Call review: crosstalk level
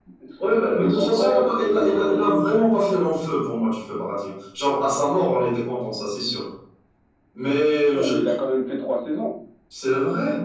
present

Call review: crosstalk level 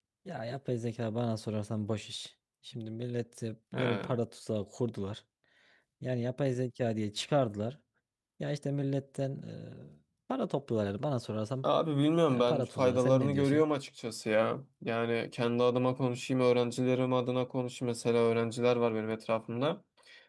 present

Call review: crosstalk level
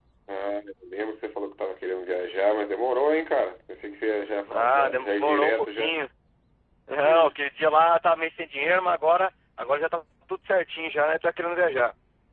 present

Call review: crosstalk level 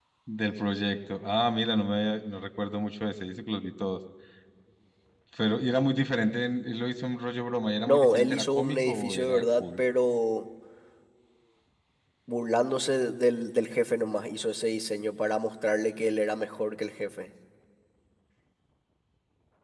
present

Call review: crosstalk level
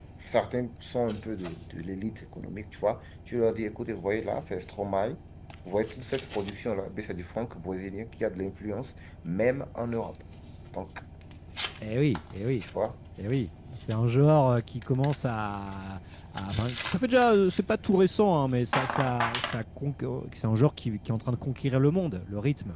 none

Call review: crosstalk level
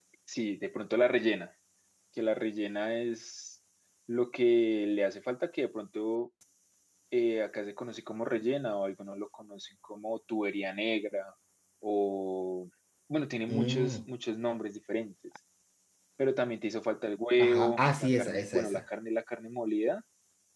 present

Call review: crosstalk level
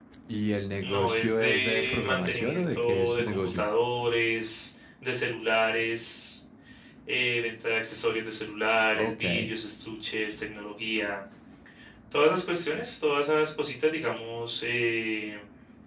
present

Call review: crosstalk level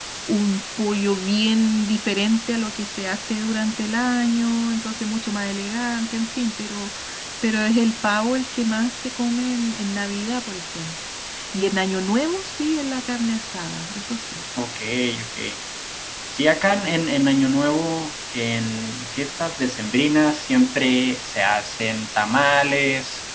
none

